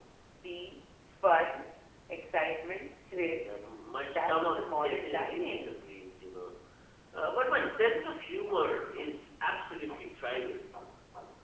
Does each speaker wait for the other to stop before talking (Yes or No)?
No